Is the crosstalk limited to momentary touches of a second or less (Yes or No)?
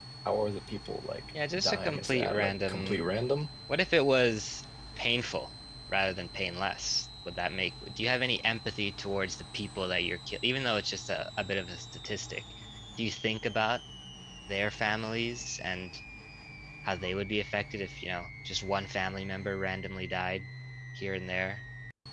No